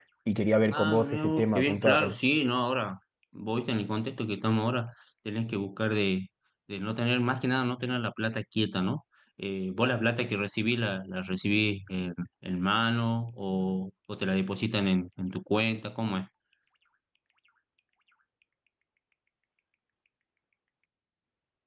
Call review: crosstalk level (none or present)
present